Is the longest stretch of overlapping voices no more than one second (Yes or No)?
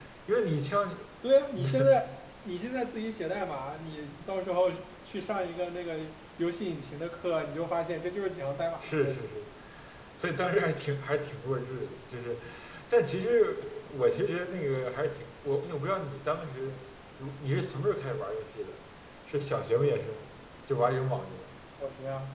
Yes